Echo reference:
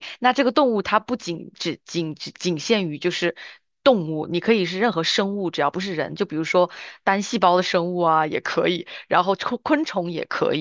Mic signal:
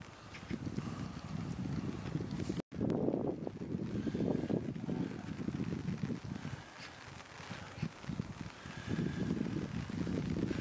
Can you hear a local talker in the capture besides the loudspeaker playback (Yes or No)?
No